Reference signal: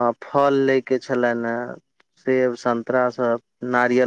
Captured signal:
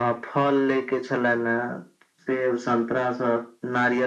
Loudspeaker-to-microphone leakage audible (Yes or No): Yes